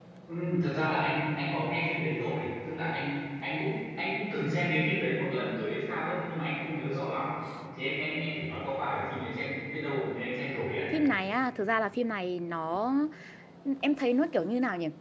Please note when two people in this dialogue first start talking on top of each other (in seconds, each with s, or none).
none